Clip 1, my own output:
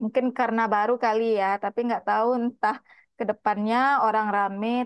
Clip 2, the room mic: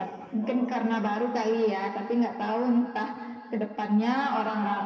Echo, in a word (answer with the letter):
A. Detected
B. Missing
A